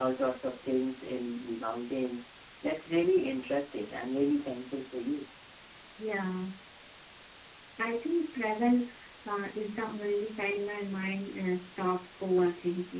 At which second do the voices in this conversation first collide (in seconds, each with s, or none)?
none